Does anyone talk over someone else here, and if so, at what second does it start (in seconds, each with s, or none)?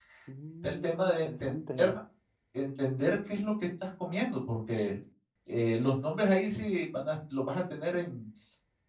0.6 s